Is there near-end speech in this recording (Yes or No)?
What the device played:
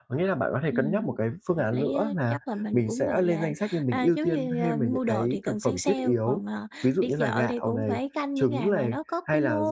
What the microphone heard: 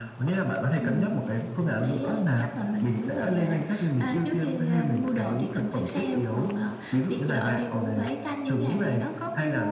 No